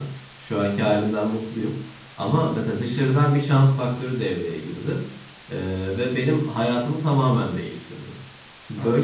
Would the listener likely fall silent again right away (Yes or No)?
Yes